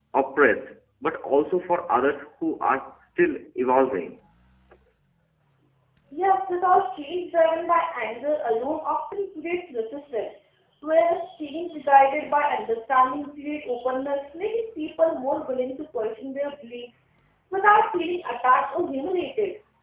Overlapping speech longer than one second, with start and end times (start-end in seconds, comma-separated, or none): none